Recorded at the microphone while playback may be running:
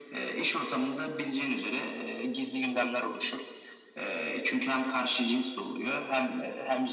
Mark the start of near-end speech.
none

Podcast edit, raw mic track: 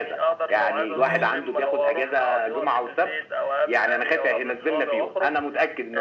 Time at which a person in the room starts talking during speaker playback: 0.9 s

